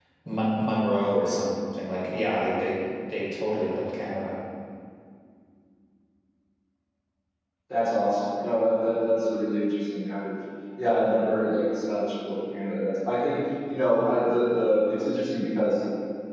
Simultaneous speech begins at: none

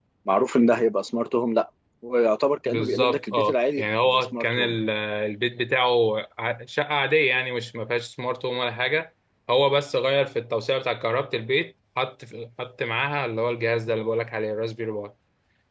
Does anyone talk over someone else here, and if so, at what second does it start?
2.6 s

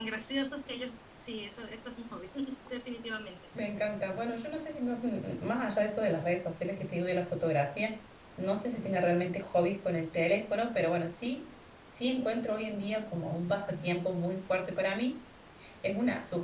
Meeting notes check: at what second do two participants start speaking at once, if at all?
none

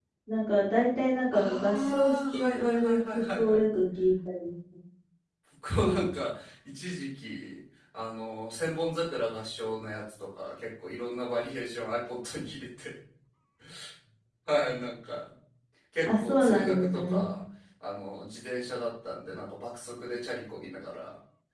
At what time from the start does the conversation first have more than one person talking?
1.3 s

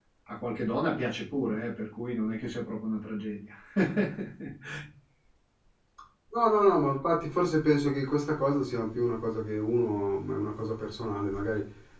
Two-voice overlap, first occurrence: none

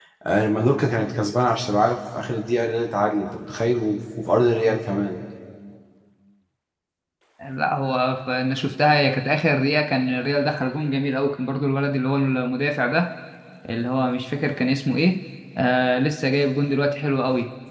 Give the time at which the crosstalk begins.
none

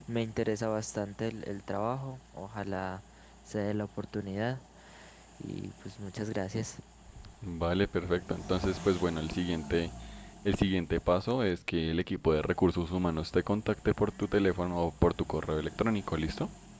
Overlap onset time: none

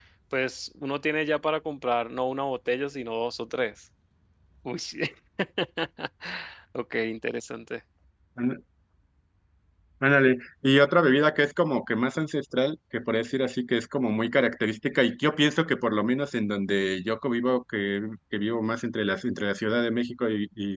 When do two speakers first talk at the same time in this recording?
none

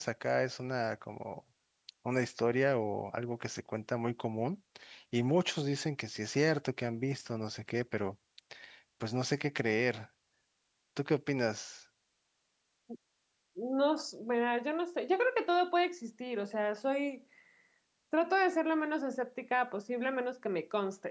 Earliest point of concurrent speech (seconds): none

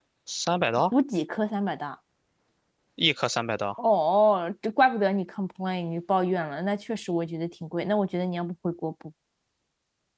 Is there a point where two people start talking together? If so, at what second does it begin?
none

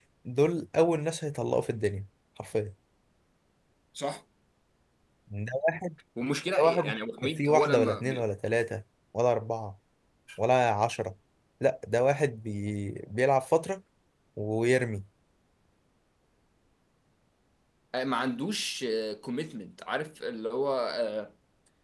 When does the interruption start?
6.6 s

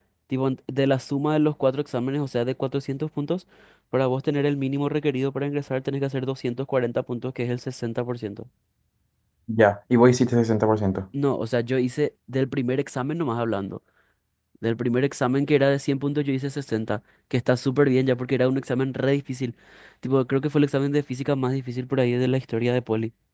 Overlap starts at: none

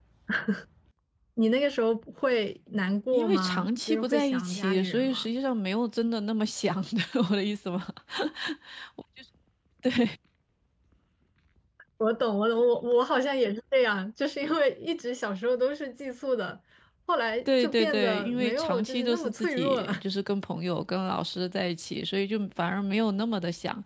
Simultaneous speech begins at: 3.1 s

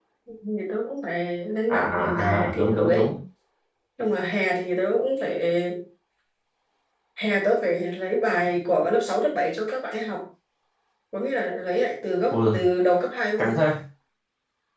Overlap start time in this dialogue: 1.7 s

